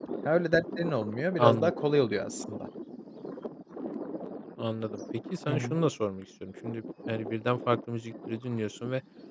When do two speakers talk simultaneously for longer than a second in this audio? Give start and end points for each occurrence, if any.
none

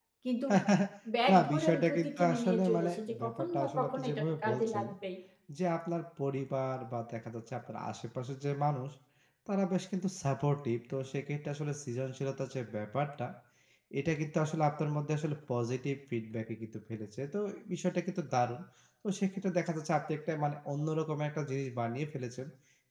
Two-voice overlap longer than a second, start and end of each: 1.3-4.8

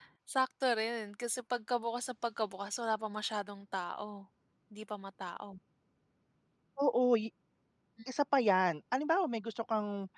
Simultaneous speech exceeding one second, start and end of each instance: none

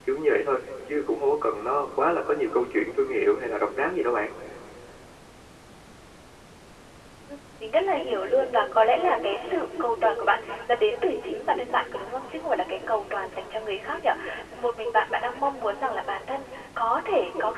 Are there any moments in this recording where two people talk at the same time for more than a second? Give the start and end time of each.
none

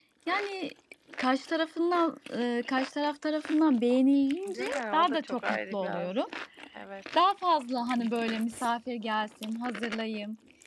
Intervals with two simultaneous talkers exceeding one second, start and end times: 4.5-6.1

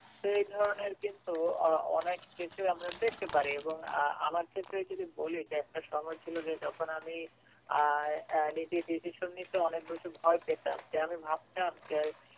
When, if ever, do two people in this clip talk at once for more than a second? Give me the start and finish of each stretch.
none

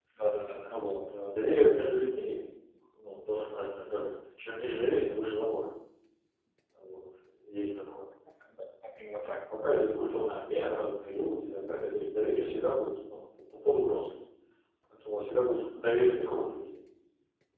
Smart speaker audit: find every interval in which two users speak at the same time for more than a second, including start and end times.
none

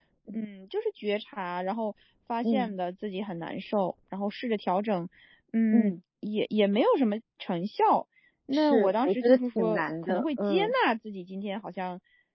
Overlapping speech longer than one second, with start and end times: 8.5-10.7

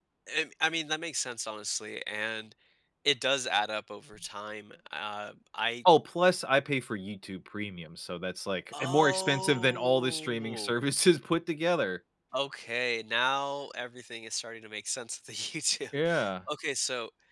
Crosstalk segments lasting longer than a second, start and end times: 8.7-10.8

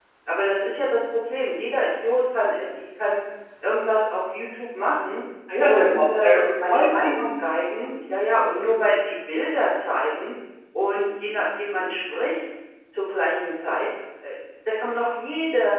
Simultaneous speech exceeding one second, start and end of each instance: 5.6-7.1

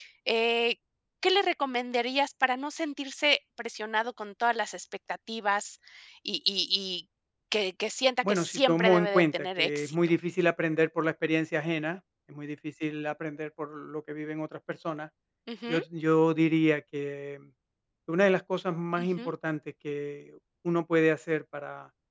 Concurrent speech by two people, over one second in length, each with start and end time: 8.2-9.9

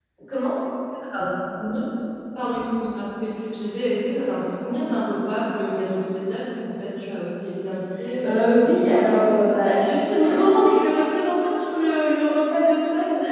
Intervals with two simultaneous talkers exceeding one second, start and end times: 8.2-9.6

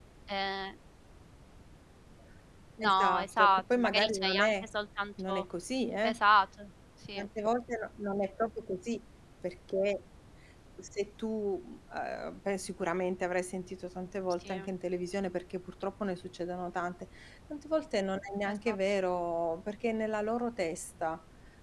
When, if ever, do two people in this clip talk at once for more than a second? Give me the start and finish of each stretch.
2.8-4.7

